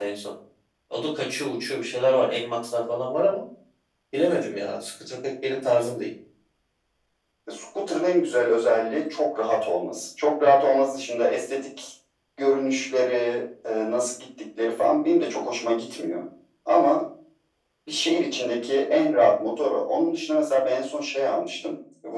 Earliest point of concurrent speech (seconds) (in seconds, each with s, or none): none